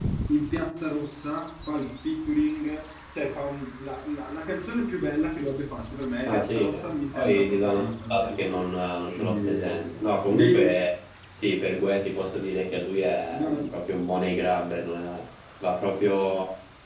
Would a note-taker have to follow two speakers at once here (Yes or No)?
Yes